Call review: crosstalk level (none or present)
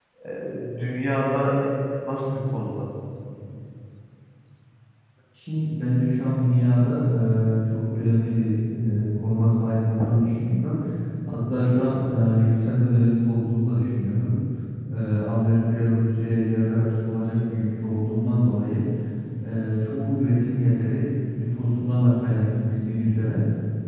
none